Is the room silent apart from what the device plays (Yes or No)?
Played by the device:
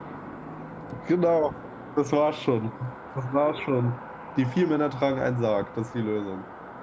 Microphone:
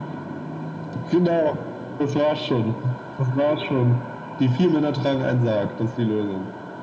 Yes